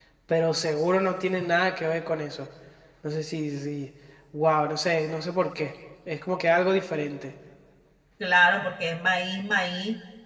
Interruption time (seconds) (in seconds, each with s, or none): none